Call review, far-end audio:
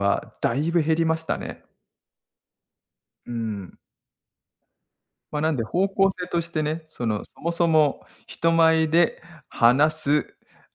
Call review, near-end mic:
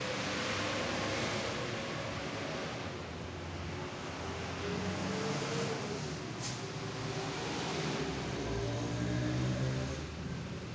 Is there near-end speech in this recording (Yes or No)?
No